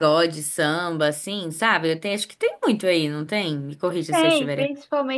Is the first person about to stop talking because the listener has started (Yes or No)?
Yes